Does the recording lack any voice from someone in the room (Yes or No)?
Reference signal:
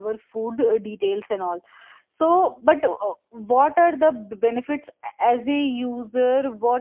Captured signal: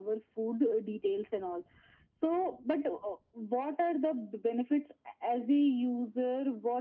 Yes